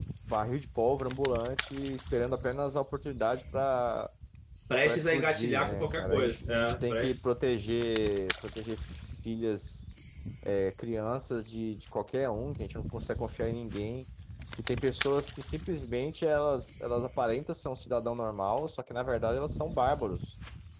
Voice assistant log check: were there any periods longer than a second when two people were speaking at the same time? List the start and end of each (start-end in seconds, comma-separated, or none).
4.8-7.1